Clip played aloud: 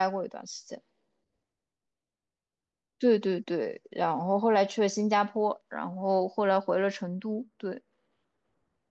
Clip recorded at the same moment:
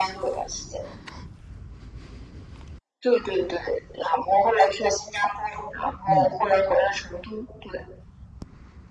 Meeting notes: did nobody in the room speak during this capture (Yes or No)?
No